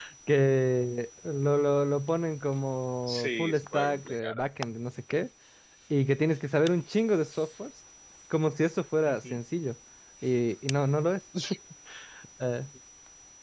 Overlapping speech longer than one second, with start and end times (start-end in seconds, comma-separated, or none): 3.1-4.4